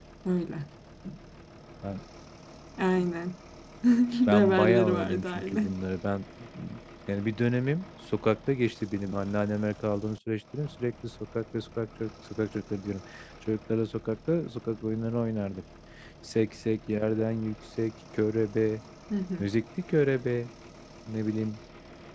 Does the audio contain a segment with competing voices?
Yes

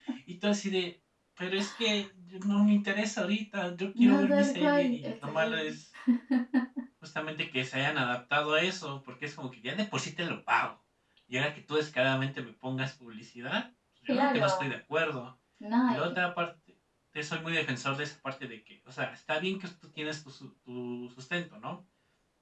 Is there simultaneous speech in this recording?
Yes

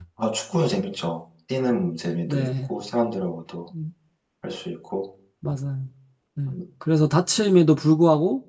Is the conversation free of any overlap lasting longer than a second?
Yes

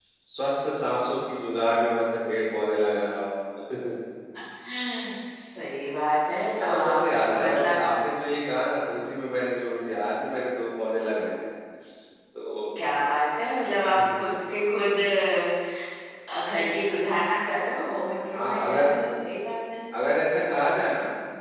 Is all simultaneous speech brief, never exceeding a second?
No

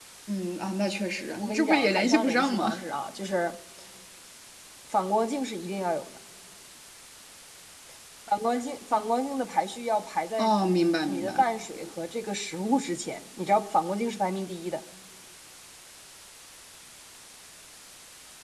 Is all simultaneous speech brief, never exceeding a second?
No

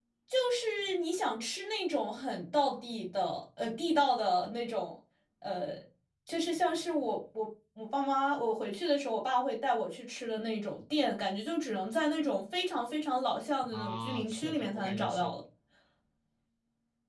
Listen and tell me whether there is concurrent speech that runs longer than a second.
Yes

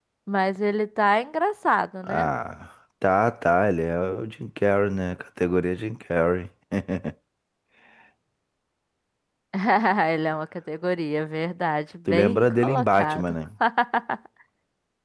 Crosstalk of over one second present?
Yes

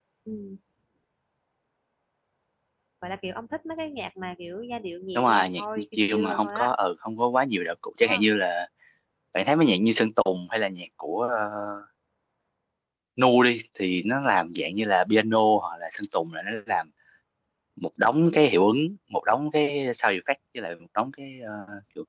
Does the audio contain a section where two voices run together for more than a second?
Yes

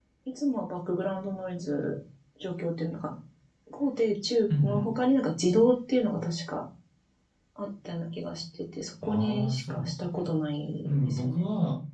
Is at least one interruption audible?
Yes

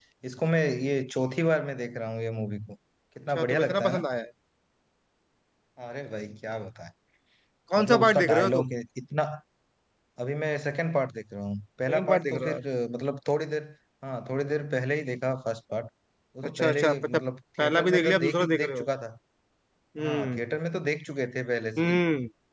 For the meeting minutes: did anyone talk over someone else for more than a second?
Yes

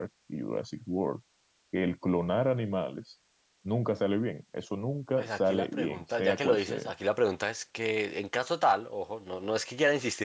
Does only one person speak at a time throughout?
No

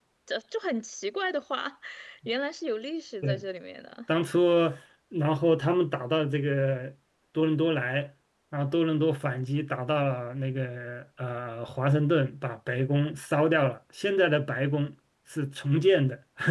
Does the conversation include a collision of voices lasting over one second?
No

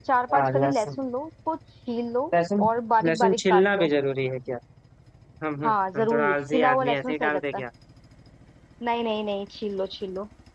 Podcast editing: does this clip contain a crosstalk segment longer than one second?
Yes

